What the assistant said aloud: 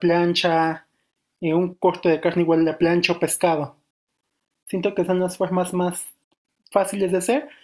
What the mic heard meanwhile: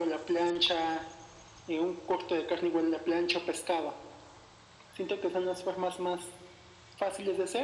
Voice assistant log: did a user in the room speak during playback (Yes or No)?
No